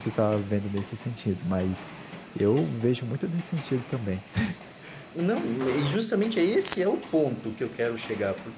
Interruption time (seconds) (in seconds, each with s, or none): none